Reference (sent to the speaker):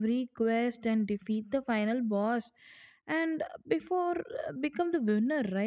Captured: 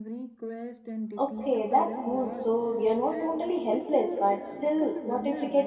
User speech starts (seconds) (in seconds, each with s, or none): 1.2 s